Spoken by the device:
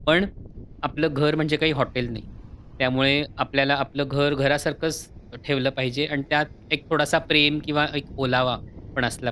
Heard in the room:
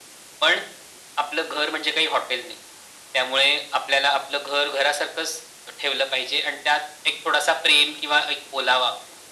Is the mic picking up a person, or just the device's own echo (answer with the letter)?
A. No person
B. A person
A